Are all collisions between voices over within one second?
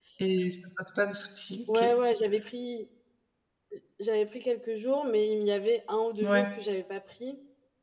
Yes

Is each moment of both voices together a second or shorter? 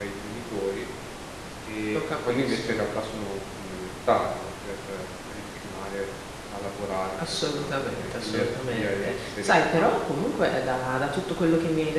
No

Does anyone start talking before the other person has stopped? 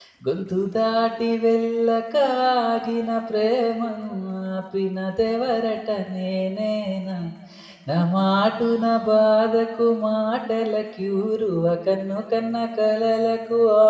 No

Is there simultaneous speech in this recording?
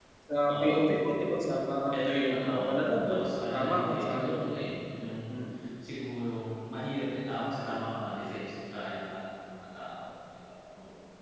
Yes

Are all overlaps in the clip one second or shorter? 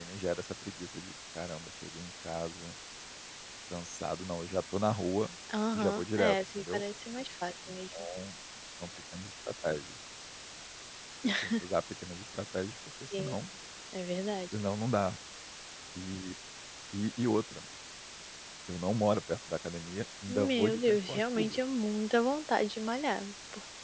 No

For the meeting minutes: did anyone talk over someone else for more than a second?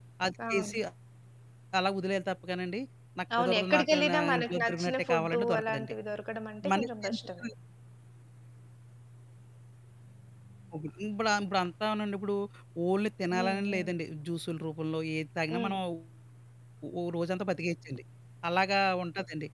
Yes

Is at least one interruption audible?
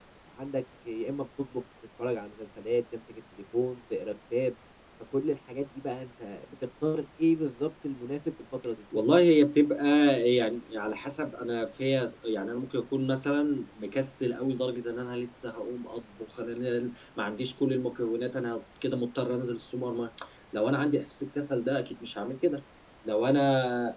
No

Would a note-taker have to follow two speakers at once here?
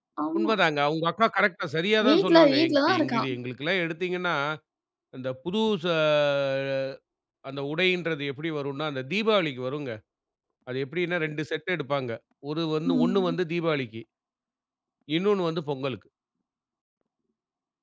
Yes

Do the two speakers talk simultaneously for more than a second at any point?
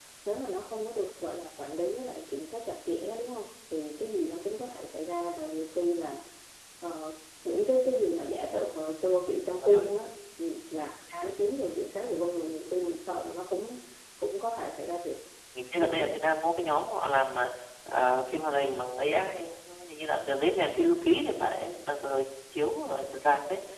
No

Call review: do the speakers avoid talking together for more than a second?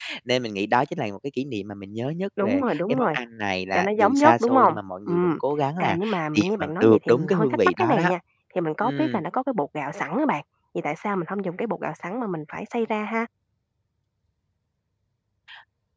No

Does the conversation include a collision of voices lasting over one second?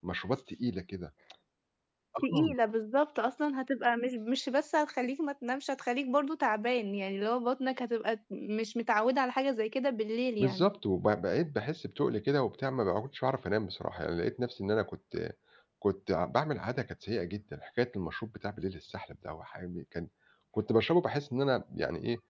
No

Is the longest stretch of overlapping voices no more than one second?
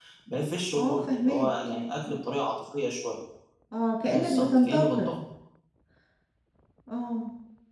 No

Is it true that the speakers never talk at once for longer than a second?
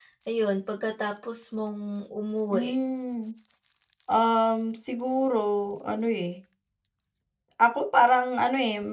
Yes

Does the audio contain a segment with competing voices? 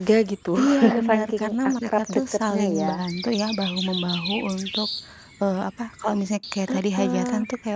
Yes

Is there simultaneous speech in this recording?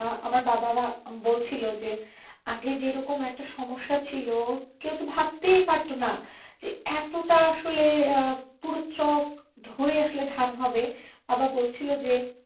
No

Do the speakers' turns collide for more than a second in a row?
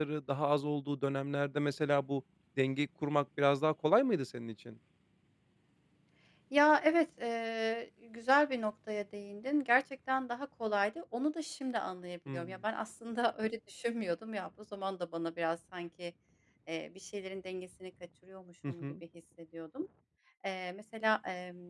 No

